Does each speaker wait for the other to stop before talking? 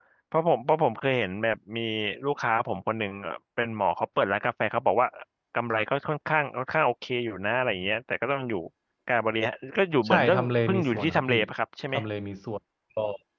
No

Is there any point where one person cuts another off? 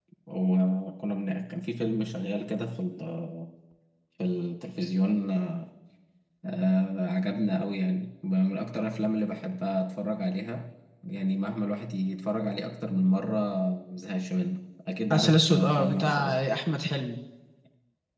Yes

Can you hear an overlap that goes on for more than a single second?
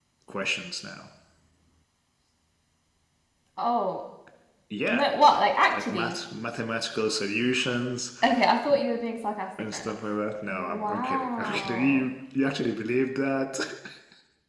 Yes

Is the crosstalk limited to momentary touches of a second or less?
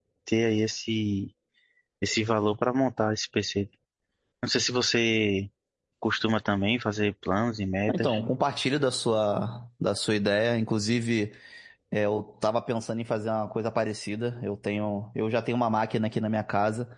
Yes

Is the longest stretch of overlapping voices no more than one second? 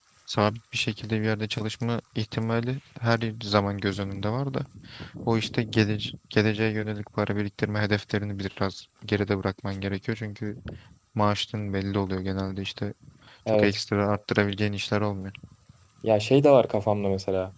Yes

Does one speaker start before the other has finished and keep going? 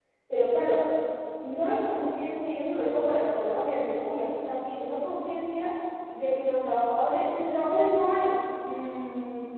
No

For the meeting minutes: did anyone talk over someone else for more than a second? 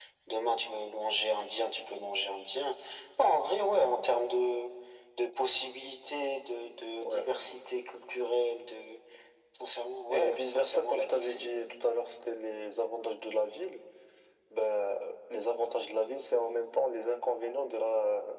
Yes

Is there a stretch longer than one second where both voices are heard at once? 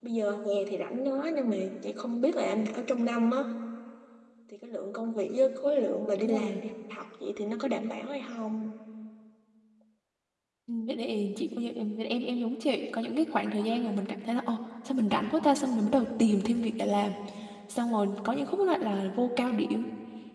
No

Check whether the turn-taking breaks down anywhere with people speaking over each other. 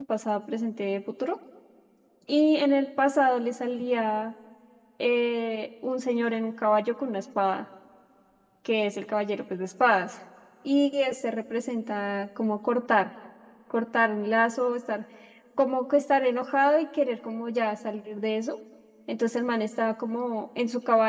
No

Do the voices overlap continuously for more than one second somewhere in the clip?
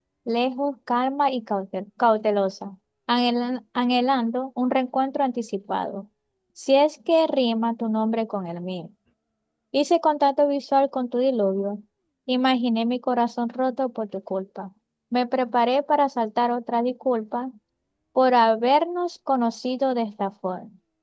No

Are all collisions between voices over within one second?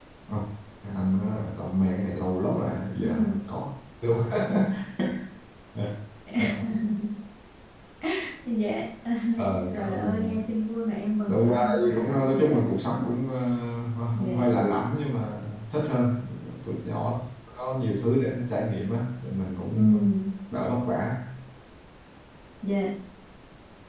No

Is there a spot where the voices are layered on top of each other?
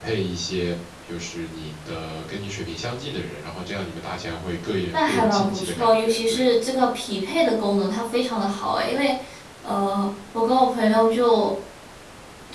Yes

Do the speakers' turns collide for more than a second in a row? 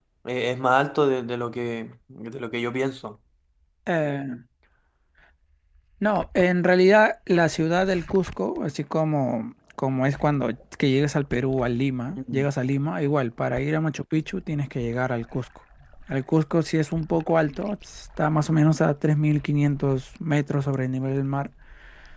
No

